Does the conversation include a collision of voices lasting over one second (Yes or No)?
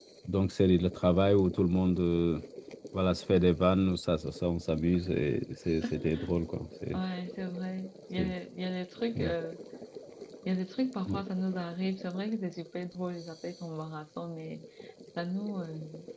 No